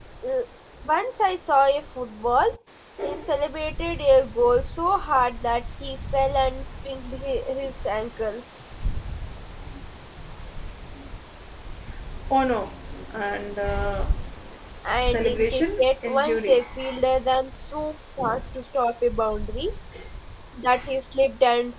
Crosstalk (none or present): present